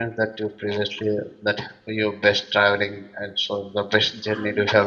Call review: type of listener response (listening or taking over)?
taking over